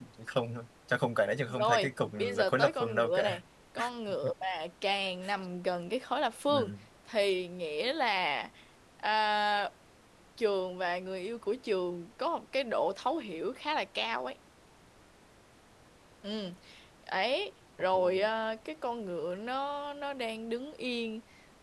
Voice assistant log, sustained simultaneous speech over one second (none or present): present